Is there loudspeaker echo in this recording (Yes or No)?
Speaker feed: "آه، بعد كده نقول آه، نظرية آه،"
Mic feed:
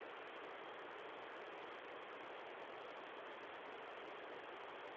No